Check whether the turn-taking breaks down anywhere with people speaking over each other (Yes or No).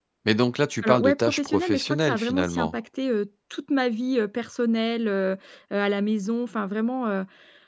Yes